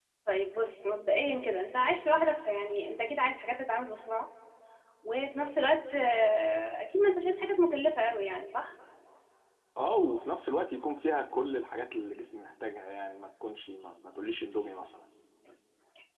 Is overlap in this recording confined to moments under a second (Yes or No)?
Yes